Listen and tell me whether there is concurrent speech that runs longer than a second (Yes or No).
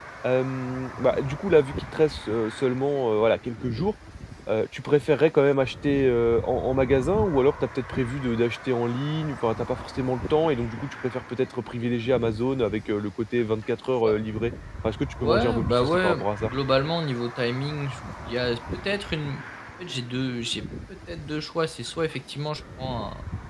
Yes